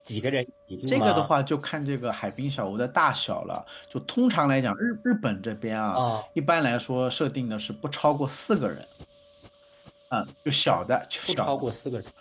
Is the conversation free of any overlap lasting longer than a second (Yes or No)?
Yes